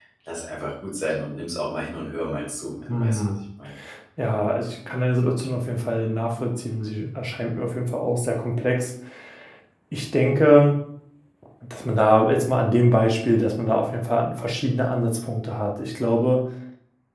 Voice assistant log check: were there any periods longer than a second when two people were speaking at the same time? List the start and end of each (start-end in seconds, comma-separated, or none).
none